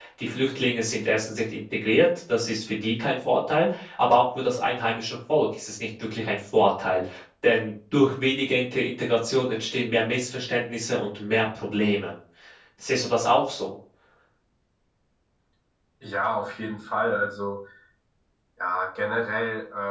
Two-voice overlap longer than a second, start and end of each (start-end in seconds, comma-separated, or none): none